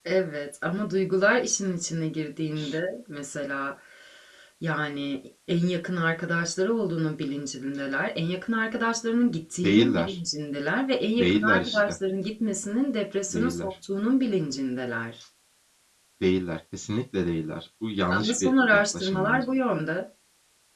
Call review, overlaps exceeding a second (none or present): present